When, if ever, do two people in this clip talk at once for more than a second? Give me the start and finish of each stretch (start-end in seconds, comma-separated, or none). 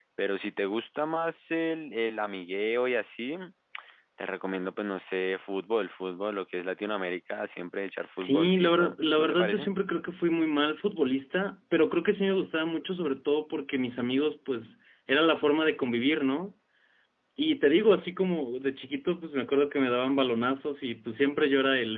8.2-9.7